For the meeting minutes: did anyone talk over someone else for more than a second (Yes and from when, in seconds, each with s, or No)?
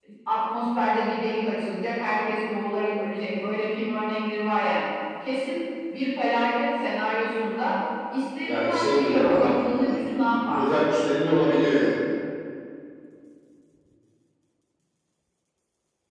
Yes, from 8.4 s